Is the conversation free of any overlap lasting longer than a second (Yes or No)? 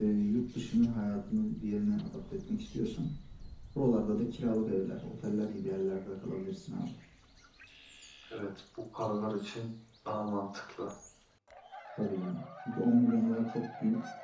Yes